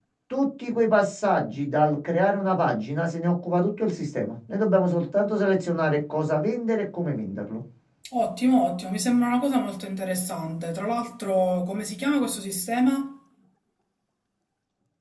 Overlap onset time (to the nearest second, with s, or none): none